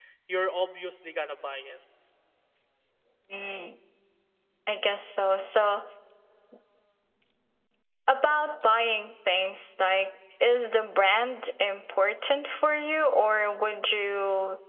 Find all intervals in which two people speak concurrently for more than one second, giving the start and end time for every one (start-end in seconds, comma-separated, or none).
none